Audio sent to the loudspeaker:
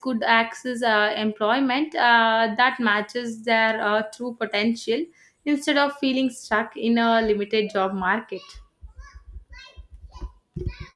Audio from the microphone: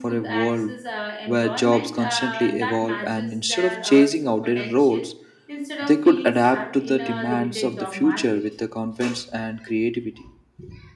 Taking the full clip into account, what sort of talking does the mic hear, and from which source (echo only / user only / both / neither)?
both